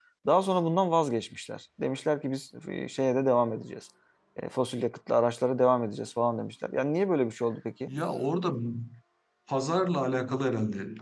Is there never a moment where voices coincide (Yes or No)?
Yes